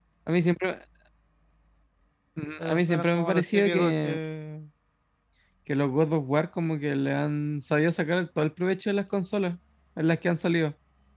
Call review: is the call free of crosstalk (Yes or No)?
No